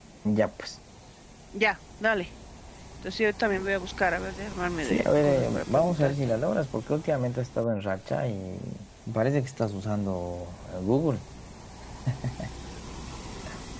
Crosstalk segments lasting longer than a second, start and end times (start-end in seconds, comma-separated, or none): 4.8-6.1